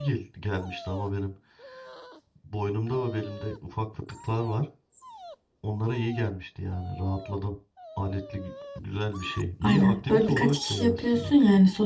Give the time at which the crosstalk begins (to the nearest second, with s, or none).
10 s